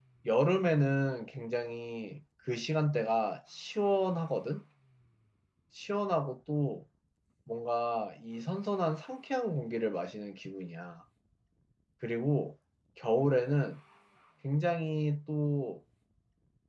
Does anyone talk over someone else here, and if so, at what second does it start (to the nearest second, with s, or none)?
none